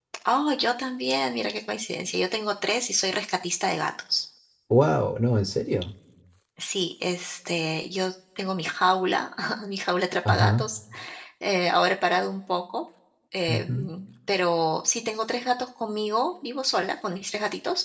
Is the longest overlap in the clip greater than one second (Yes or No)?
No